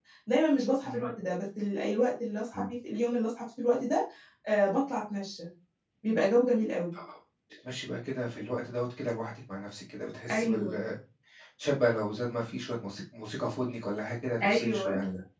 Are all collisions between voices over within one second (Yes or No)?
Yes